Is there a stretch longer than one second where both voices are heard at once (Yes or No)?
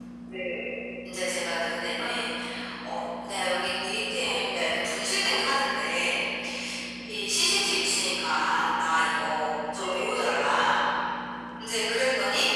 No